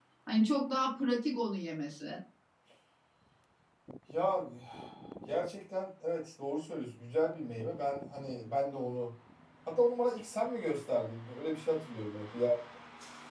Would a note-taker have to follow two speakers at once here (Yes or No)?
No